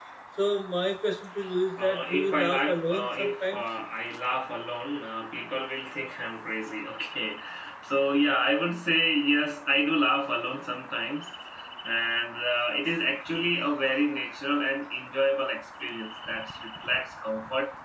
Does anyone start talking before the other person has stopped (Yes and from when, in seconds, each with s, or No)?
Yes, from 1.8 s